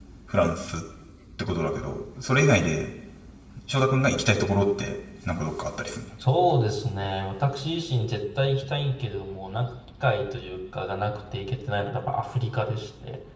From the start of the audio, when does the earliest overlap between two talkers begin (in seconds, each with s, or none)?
none